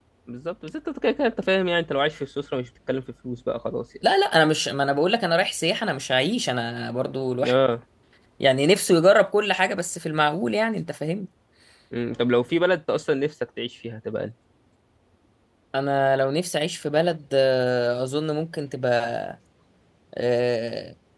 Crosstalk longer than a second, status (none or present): none